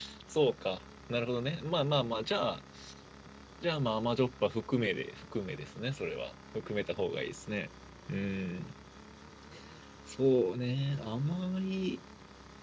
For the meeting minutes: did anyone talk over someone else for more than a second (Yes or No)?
No